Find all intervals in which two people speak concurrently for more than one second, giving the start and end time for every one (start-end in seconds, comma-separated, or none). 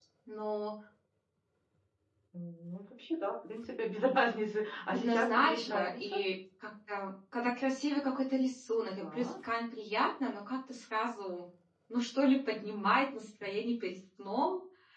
4.9-6.2